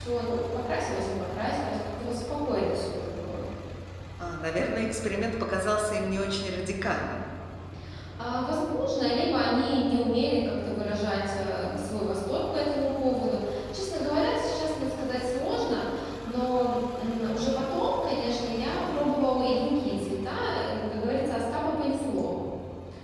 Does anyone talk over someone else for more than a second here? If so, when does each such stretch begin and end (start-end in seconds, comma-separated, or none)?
none